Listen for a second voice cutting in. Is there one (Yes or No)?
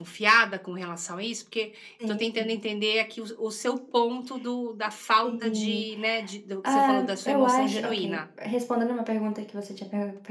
Yes